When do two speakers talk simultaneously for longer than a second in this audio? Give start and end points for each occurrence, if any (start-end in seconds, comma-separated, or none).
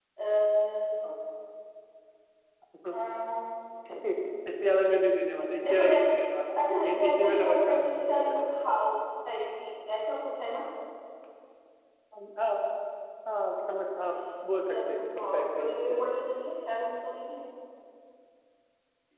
6.8-8.4, 14.1-16.0